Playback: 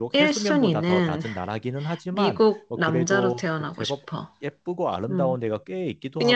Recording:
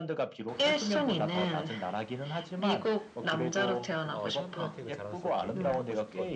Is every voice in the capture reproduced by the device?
No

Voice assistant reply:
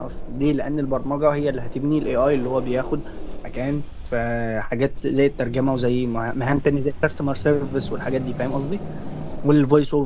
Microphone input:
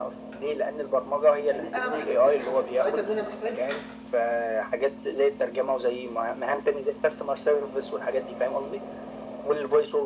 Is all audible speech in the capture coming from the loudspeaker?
No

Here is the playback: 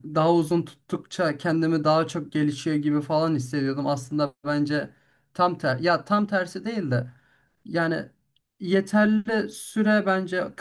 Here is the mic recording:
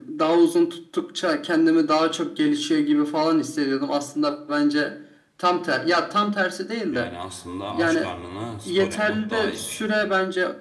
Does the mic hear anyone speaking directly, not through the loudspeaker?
Yes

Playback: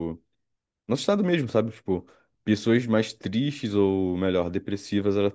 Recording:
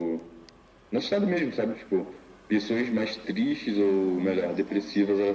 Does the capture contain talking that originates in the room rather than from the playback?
Yes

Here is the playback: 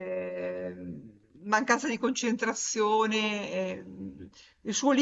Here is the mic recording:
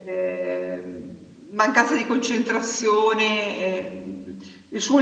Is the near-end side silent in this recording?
Yes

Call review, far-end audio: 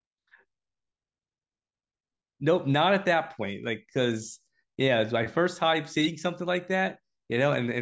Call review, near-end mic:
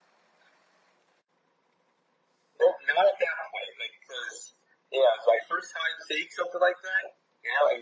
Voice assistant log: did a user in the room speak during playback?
No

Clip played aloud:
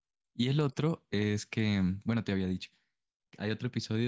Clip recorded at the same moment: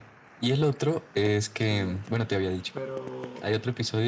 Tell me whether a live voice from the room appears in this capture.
Yes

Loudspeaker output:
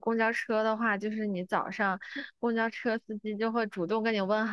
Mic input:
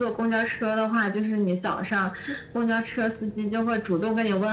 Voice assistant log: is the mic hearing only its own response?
Yes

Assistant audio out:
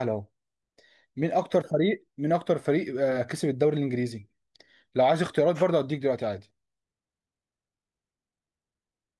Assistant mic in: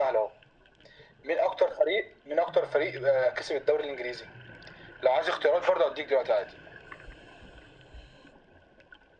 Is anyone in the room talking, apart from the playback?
No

